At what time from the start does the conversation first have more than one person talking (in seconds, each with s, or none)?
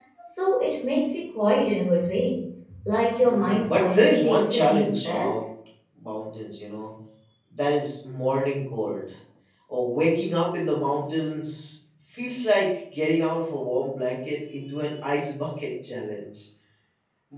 3.2 s